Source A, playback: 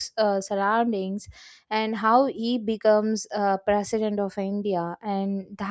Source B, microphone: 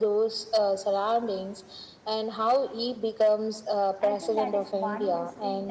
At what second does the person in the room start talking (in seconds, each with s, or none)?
4.0 s